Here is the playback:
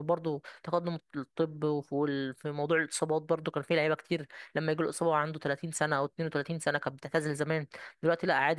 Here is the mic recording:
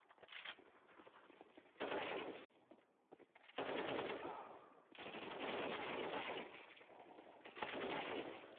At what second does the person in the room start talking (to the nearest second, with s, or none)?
none